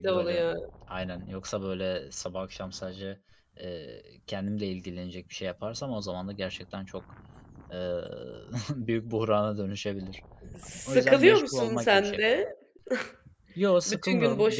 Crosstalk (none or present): present